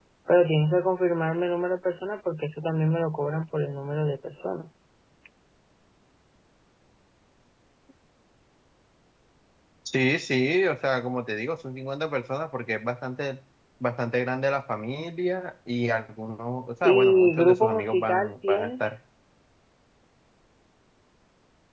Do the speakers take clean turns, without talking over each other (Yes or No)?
No